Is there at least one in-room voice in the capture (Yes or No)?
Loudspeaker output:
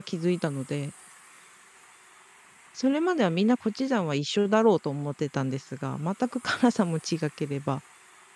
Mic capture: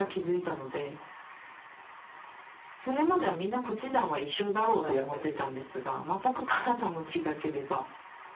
Yes